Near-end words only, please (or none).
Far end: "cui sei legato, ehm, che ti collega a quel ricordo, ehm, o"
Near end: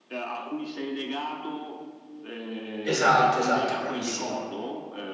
Esatto, esatto, bravissimo.